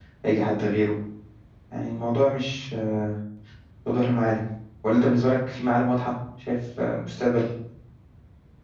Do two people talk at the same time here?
No

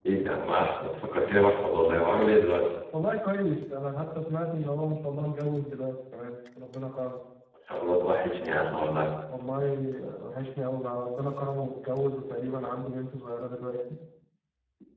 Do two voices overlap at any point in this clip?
No

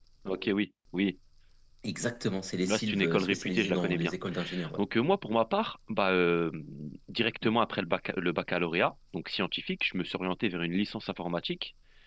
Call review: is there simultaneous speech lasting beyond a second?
Yes, from 2.7 s

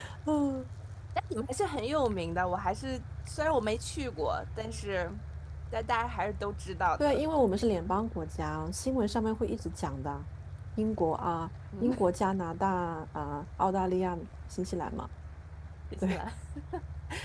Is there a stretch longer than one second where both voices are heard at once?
No

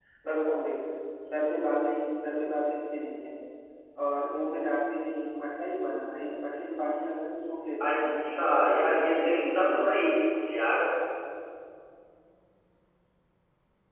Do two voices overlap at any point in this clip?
Yes, from 7.8 s

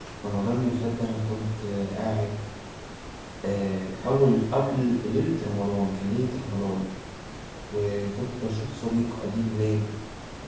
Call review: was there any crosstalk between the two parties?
No

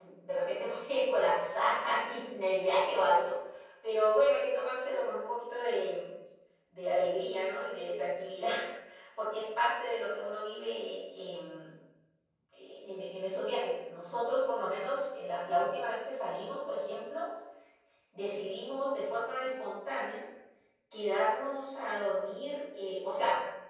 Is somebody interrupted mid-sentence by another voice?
No

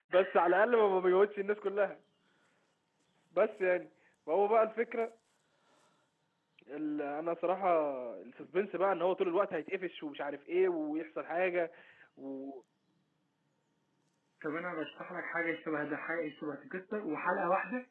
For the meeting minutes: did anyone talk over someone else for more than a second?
No

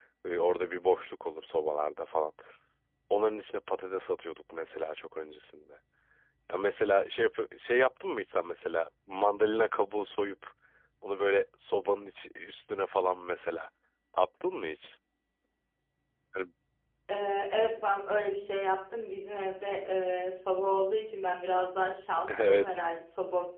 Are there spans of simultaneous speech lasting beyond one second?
No

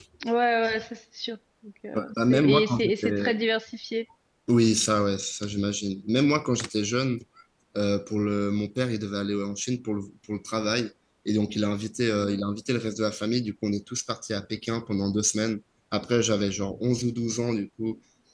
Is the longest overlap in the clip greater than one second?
Yes, from 1.9 s

